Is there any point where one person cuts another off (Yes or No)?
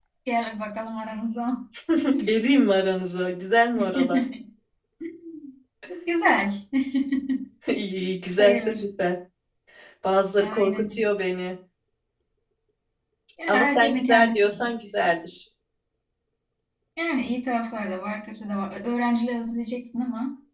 Yes